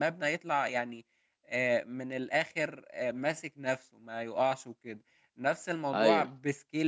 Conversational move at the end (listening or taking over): listening